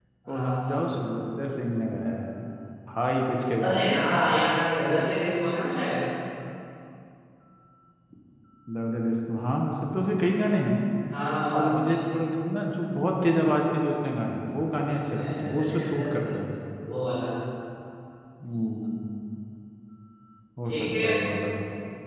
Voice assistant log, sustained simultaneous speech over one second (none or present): present